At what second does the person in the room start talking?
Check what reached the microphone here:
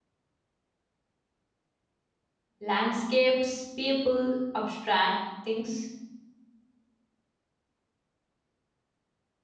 2.6 s

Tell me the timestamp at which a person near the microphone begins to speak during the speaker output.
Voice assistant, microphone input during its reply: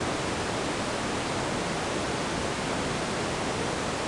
none

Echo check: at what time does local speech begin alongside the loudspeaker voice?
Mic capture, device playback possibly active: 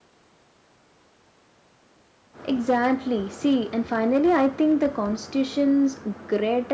2.5 s

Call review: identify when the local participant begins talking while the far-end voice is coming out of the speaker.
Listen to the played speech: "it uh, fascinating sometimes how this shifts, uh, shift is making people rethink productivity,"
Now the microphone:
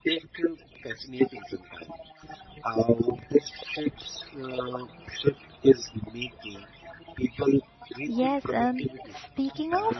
8.1 s

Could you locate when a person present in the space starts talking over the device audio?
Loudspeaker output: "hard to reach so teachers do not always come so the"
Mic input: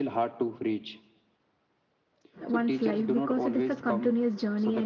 2.5 s

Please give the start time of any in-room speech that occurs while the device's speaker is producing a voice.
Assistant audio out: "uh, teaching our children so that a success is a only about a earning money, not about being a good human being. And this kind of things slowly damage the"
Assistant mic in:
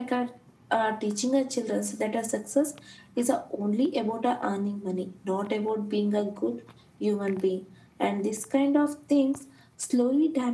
none

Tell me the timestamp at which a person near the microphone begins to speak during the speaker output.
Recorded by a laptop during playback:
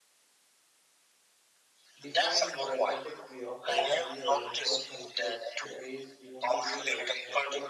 2.0 s

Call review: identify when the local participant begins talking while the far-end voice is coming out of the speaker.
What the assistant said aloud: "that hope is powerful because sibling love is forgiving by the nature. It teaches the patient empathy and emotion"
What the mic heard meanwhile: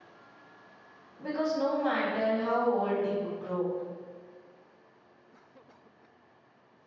1.2 s

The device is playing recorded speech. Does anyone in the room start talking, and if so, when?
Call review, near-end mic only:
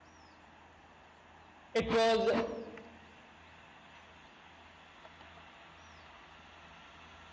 1.8 s

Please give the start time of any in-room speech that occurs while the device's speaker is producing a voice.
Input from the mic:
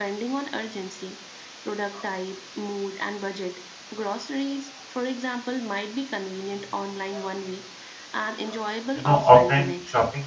8.9 s

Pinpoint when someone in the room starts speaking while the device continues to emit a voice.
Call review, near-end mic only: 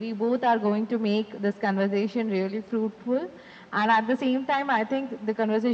none

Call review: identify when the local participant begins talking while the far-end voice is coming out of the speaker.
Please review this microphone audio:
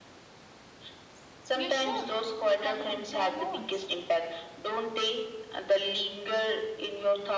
1.6 s

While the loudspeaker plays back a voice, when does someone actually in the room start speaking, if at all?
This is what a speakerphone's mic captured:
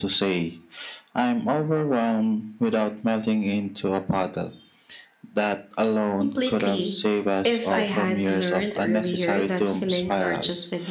6.2 s

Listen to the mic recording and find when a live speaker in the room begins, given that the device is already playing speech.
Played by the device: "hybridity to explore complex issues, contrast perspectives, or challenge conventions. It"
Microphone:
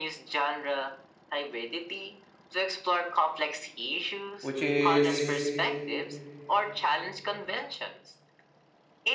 4.4 s

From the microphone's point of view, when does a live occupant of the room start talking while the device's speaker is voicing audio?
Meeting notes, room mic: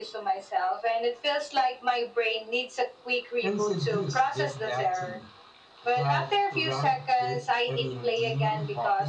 3.4 s

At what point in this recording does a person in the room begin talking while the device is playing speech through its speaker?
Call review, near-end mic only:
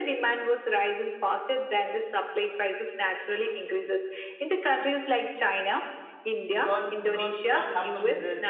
6.5 s

